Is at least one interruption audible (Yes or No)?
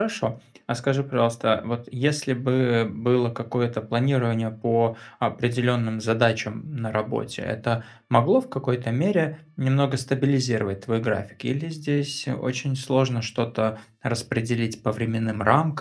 No